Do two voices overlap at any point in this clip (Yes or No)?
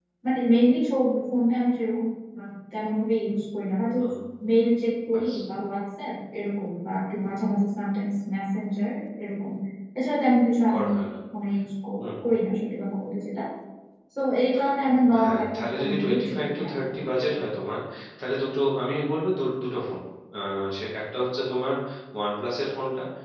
Yes